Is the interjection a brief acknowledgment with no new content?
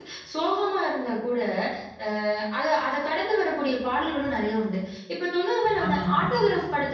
Yes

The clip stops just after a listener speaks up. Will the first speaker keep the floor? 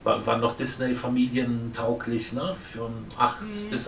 No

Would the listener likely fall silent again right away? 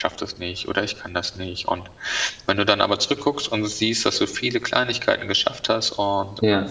Yes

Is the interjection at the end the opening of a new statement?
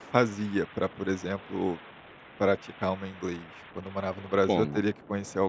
No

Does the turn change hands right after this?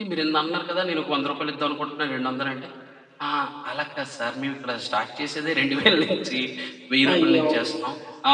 No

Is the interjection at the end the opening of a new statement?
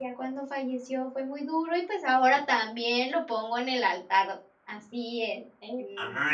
Yes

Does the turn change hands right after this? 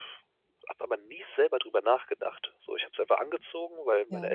No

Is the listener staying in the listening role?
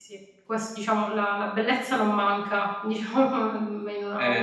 No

